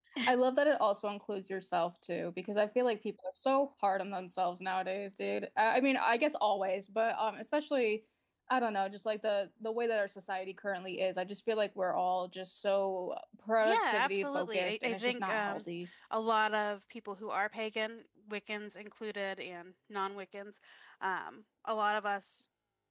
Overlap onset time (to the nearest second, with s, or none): 14 s